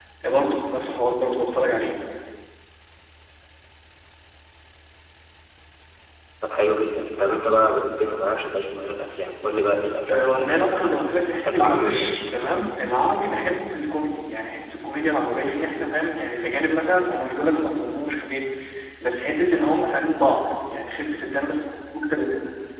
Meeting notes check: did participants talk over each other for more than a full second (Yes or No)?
Yes